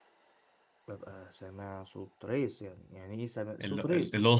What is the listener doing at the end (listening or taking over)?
taking over